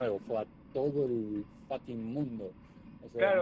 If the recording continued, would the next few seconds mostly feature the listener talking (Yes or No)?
Yes